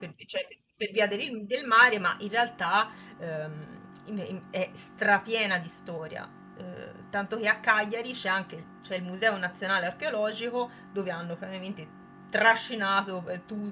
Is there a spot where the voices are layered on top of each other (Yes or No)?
No